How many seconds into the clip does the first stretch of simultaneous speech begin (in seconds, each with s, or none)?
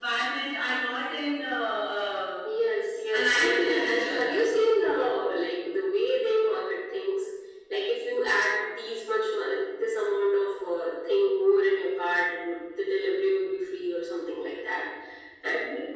3.1 s